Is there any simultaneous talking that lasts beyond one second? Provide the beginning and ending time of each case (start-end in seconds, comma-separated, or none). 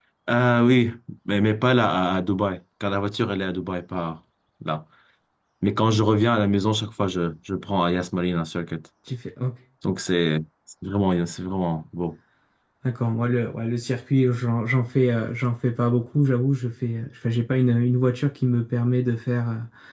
none